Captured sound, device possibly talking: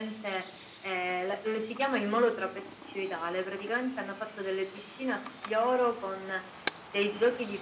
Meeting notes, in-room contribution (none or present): none